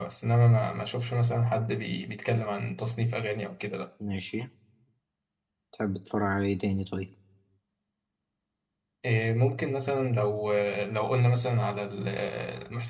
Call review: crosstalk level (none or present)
none